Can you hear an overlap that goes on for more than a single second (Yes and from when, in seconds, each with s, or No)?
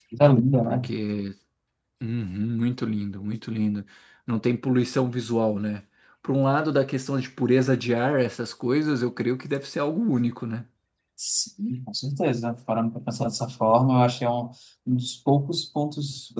No